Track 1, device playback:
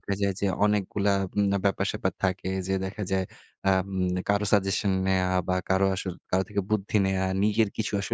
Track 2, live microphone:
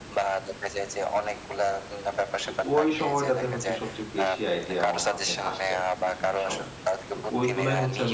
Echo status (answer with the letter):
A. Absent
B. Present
B